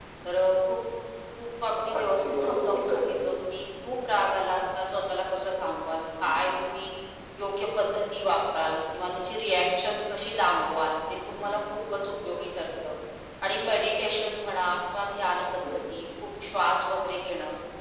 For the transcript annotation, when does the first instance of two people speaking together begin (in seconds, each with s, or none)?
2.0 s